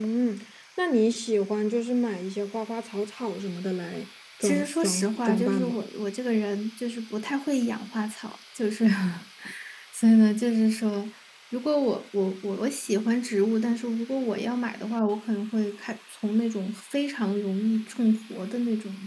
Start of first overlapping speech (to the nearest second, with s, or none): 4 s